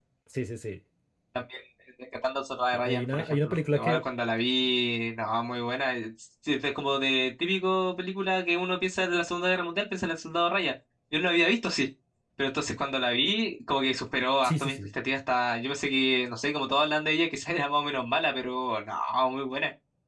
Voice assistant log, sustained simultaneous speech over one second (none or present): present